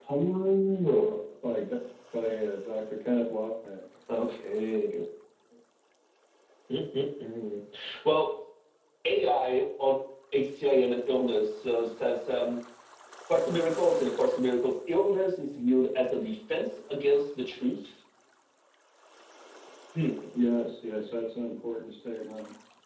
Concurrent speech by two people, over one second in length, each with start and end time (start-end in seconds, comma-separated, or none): none